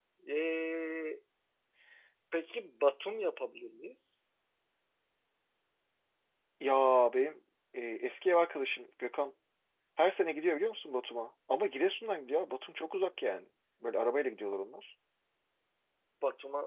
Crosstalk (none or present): none